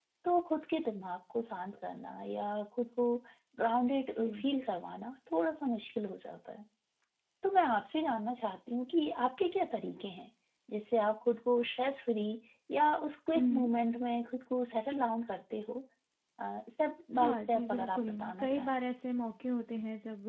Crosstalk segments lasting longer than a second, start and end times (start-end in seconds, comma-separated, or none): 17.1-18.8